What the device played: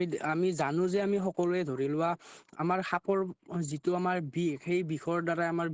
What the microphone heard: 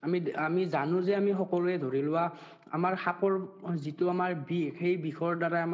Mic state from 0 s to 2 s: echo only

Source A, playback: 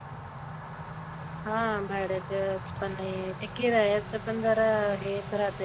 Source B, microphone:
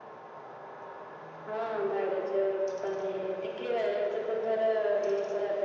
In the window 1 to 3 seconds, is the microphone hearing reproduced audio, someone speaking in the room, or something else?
echo only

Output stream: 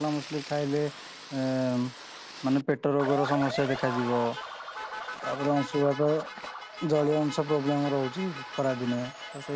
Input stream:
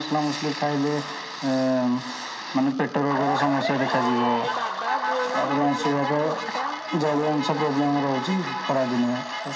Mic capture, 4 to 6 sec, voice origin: both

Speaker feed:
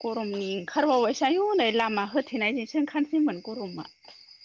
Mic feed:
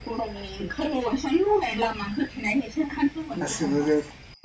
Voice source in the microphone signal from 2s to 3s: echo only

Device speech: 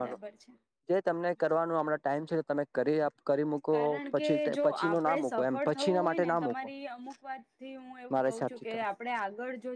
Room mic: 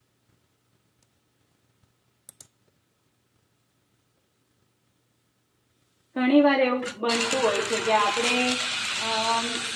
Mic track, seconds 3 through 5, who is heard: neither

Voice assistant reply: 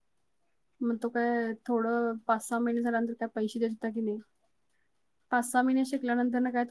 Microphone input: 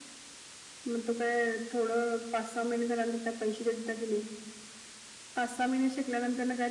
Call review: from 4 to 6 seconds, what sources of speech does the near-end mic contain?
echo only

